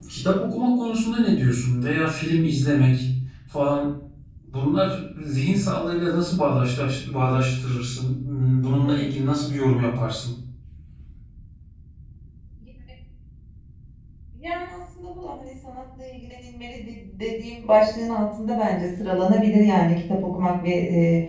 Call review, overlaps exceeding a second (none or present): none